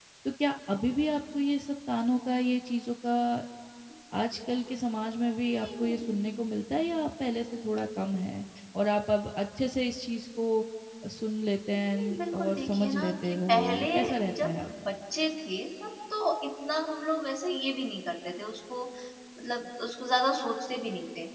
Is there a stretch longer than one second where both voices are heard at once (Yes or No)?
Yes